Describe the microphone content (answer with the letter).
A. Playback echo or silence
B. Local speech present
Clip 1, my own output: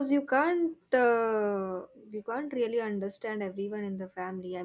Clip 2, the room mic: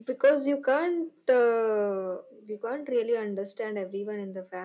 A